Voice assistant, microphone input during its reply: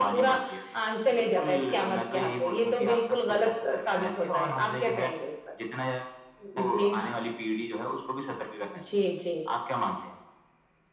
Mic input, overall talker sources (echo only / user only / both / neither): echo only